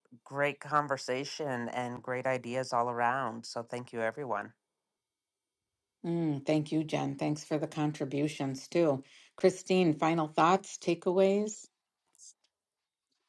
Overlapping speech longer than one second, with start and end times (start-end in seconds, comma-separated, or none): none